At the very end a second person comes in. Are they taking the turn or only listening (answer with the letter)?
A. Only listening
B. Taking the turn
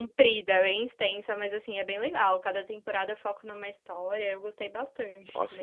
B